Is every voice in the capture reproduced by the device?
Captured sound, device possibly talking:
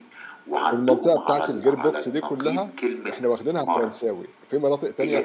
No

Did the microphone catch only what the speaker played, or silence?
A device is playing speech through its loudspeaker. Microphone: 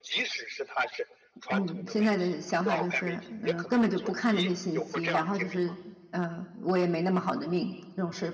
No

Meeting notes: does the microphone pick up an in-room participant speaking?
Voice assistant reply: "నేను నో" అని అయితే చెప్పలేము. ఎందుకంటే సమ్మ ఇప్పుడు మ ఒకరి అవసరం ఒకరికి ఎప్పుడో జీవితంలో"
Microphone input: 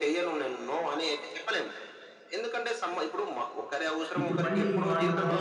Yes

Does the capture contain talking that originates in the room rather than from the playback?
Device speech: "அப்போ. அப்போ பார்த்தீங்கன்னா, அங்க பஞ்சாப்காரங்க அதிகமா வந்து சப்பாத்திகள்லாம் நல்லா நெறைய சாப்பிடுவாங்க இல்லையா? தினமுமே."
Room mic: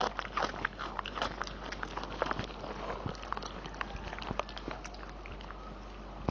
No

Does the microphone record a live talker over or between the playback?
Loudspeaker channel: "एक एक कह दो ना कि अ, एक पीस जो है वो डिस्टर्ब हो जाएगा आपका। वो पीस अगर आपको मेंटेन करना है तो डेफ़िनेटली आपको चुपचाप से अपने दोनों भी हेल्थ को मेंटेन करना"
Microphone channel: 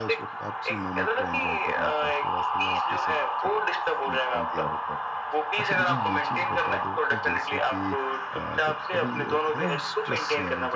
Yes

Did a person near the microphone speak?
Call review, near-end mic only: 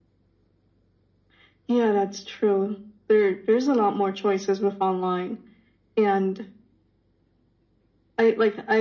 No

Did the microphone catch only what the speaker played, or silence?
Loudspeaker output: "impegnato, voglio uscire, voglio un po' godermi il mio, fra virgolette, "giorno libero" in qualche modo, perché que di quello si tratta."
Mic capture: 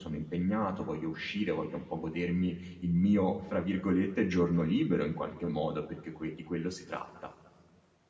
Yes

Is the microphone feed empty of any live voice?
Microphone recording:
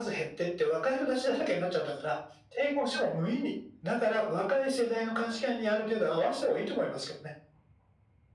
Yes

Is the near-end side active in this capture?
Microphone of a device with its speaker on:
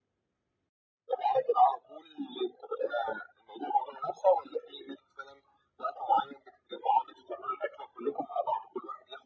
No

